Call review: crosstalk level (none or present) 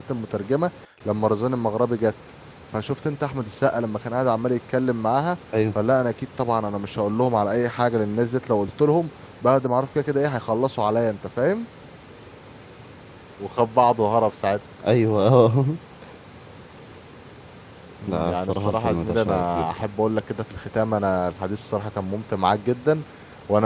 present